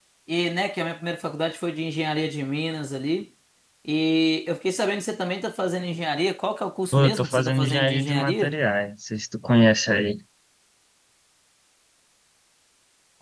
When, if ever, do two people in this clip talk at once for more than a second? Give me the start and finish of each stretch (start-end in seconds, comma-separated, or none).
6.9-8.5